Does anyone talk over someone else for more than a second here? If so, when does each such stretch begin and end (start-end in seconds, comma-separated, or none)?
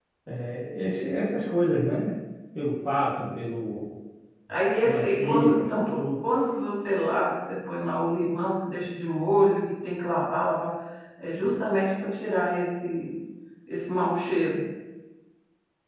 4.8-6.2